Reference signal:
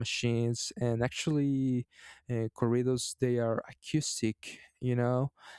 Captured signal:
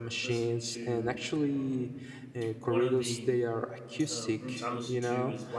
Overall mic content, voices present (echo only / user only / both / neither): both